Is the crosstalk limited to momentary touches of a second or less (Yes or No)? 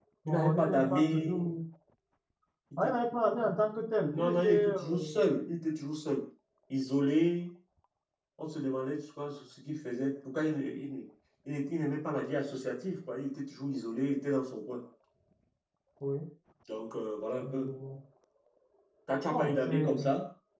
No